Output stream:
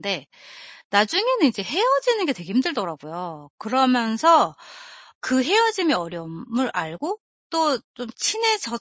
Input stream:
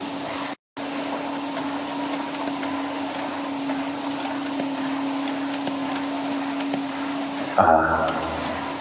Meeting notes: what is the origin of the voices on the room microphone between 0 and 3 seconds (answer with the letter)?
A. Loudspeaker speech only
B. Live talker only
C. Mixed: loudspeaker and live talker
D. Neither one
D